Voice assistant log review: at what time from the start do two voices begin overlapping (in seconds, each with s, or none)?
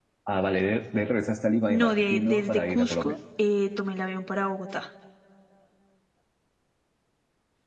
1.7 s